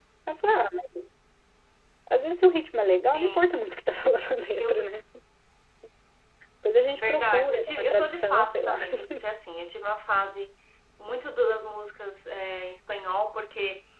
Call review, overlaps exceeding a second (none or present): present